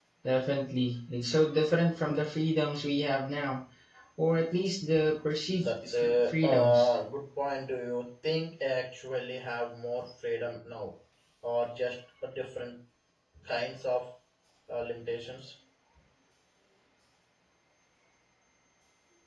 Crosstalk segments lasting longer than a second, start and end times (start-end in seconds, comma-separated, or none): 5.6-7.0